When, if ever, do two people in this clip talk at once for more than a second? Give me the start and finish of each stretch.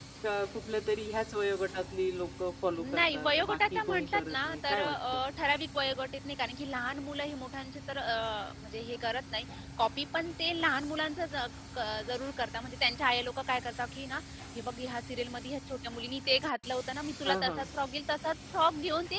2.8-5.0

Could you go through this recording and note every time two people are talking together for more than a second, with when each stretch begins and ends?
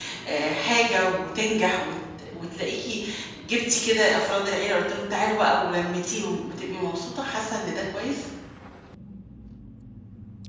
none

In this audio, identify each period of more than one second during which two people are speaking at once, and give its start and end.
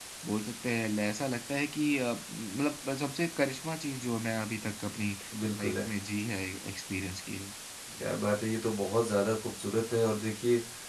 none

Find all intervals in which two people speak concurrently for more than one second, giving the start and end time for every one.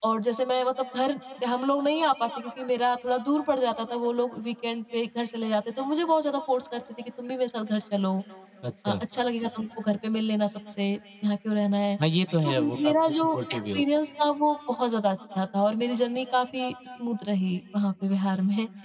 12.4-13.8

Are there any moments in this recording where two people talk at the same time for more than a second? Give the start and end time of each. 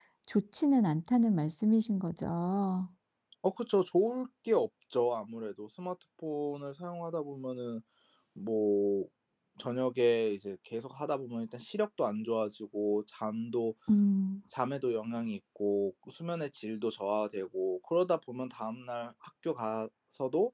none

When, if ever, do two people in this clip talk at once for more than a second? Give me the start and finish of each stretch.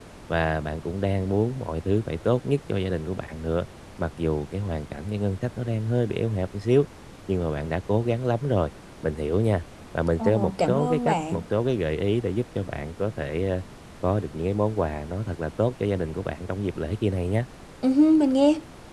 10.2-11.4

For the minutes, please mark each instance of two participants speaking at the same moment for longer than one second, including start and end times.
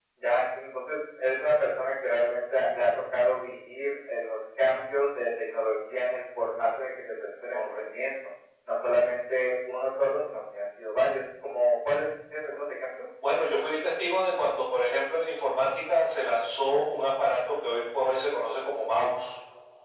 none

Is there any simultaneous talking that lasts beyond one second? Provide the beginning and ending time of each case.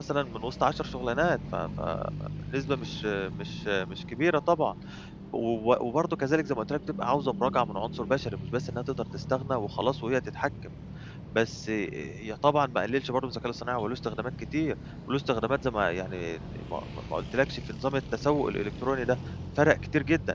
none

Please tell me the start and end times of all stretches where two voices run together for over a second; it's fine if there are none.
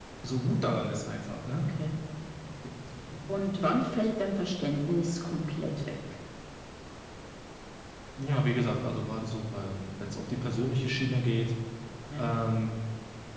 none

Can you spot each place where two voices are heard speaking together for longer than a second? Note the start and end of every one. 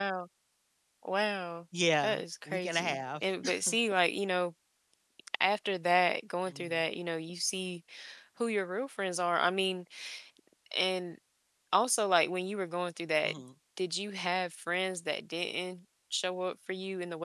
2.0-3.2

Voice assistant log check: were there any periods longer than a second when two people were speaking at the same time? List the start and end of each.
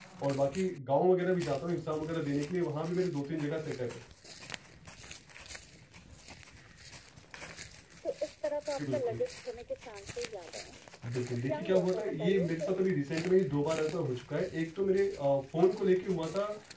11.4-12.8

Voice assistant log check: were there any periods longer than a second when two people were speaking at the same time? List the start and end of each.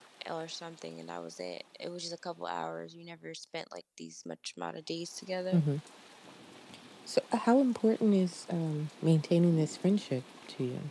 none

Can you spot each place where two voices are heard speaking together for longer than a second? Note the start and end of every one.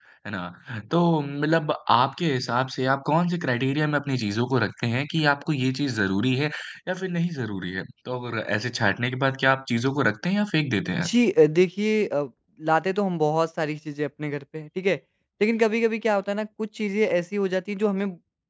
none

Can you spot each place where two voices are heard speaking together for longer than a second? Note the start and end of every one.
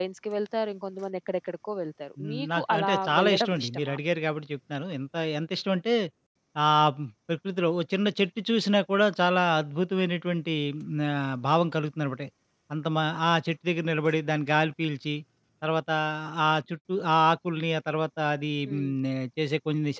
2.2-4.0

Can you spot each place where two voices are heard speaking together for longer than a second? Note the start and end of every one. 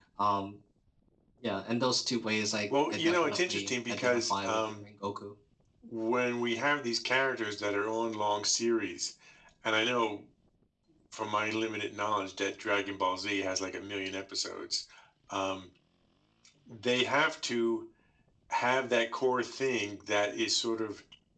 2.9-4.8

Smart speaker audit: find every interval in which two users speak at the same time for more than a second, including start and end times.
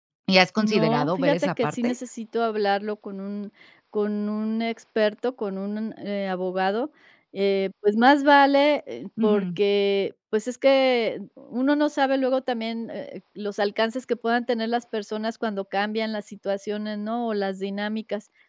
0.6-1.9

